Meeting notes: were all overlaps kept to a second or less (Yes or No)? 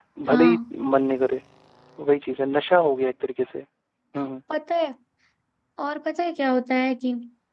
Yes